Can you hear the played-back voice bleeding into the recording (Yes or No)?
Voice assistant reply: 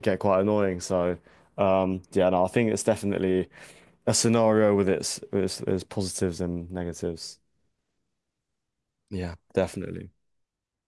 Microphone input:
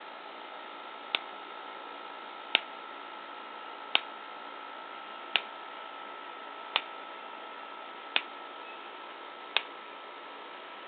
No